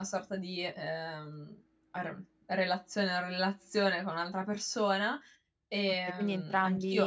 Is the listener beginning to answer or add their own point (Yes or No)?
Yes